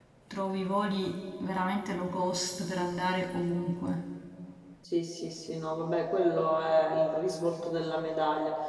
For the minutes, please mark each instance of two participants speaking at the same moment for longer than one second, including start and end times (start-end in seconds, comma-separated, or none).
none